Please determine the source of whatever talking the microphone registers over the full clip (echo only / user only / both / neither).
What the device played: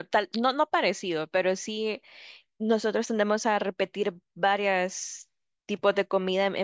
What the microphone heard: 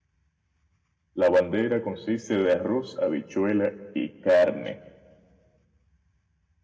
user only